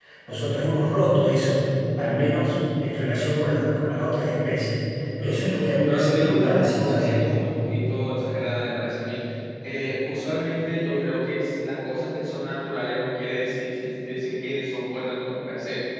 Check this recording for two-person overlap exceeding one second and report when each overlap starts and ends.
5.8-7.3

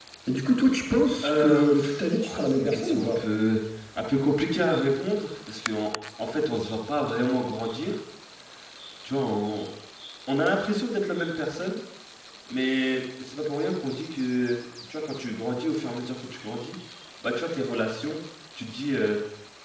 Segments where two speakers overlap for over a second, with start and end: 1.2-3.2

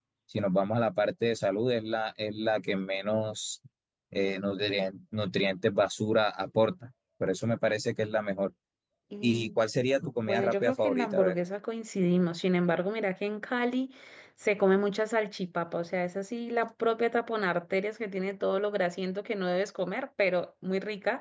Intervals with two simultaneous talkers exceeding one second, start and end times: 10.2-11.4

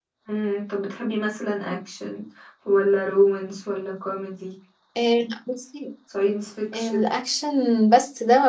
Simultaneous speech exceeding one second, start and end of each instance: none

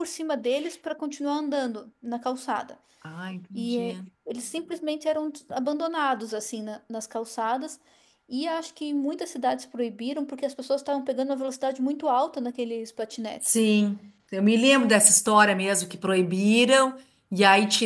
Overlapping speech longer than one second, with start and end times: none

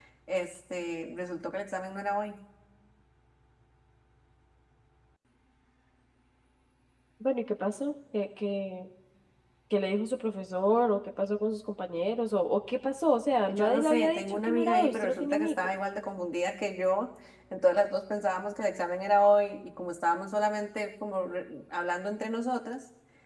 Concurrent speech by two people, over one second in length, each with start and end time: 13.5-15.7

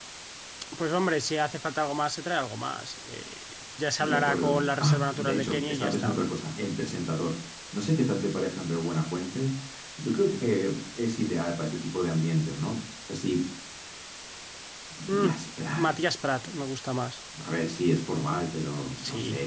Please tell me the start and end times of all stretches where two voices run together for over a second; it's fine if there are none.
4.0-6.2

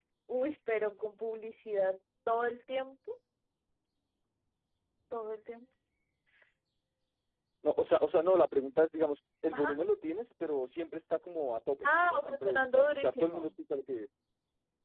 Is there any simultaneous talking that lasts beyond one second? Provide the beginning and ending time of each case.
11.8-13.5

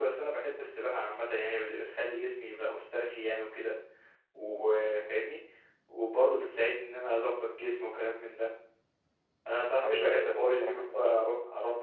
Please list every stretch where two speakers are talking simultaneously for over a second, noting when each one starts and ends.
9.8-11.1

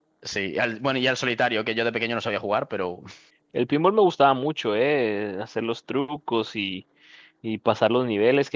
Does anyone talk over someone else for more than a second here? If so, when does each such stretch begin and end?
none

